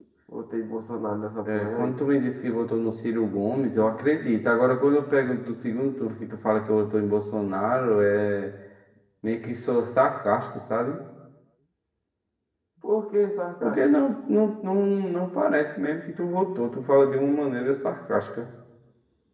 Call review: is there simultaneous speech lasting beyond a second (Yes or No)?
No